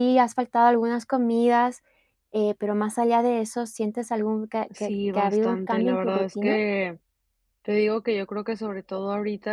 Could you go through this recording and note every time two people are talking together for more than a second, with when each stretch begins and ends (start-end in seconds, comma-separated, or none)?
4.8-6.6